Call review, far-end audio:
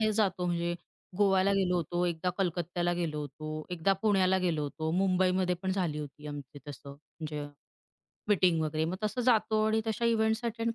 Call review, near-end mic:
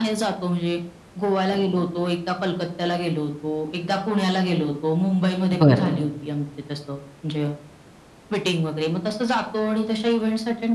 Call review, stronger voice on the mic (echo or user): user